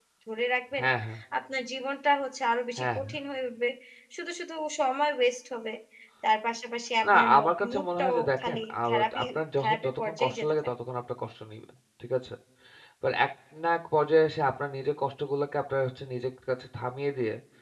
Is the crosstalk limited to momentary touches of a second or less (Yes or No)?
No